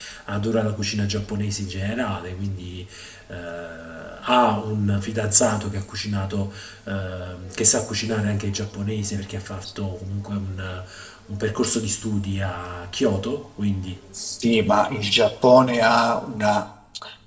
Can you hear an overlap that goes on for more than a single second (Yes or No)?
No